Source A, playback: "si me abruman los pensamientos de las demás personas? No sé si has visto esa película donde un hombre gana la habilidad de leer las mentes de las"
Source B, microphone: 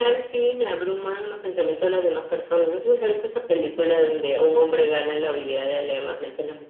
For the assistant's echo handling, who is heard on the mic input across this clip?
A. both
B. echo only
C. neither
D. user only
B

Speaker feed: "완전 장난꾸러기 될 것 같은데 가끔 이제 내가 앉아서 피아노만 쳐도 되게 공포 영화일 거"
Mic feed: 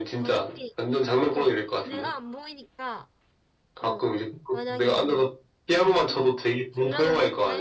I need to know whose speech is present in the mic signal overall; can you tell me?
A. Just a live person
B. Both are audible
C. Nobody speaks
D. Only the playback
B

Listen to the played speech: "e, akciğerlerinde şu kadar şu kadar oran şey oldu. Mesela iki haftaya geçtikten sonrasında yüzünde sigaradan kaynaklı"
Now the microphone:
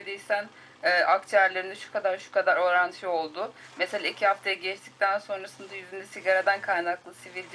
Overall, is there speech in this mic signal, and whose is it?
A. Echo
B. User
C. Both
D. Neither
A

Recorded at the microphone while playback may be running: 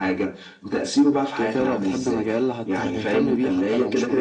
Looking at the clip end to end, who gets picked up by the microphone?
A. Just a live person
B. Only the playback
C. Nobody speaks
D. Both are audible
B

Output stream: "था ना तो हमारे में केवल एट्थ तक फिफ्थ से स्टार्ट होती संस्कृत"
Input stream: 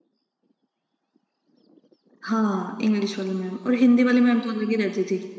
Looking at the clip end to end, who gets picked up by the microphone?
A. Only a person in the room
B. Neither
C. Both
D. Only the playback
A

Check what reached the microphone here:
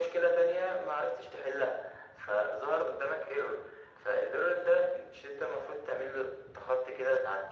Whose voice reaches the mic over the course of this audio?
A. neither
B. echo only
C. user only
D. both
B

